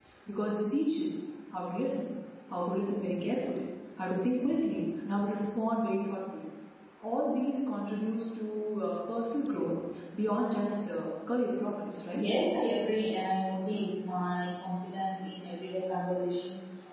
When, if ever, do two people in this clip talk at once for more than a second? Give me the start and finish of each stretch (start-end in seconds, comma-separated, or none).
none